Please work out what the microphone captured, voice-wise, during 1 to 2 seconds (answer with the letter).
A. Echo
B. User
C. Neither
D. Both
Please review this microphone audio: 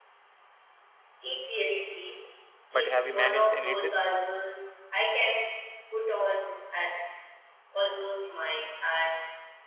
A